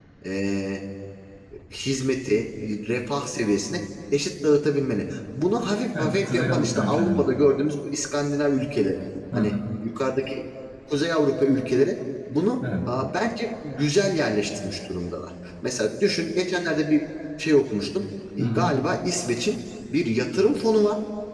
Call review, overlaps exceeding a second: present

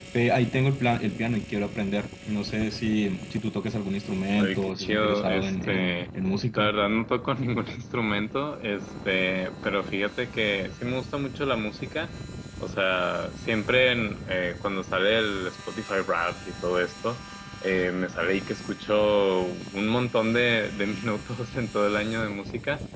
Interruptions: present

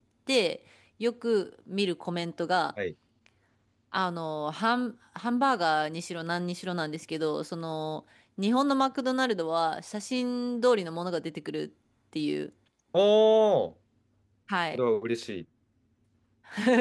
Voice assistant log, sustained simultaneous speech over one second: none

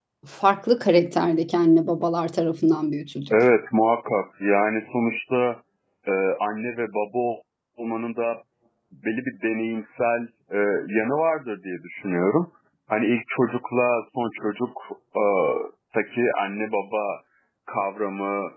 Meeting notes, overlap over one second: none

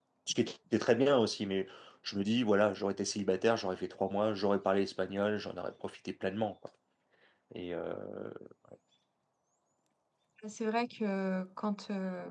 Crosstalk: none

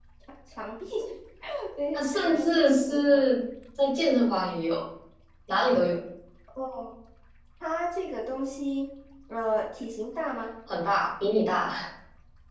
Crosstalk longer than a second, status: present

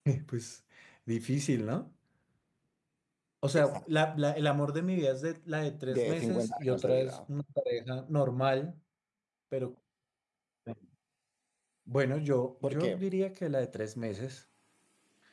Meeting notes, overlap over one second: present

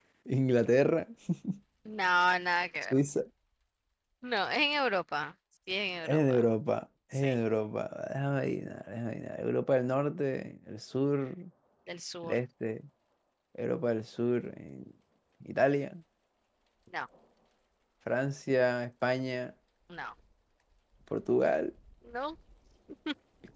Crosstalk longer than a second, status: none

